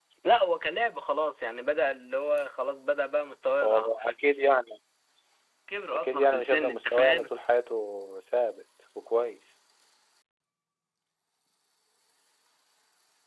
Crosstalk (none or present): present